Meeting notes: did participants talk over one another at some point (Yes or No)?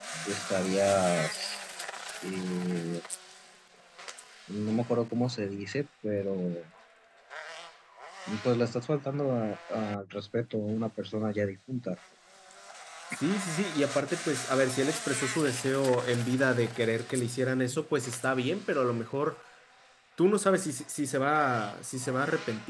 No